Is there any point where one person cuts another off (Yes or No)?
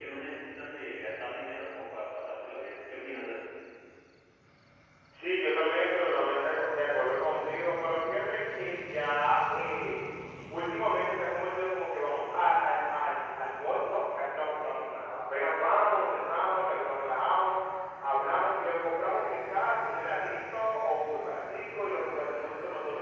No